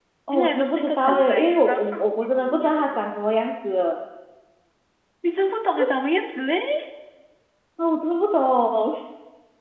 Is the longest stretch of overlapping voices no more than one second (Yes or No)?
No